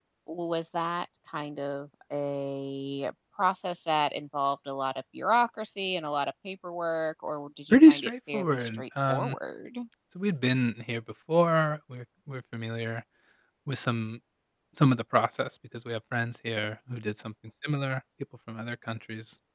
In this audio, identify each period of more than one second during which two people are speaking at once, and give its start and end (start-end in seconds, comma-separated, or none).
7.7-9.3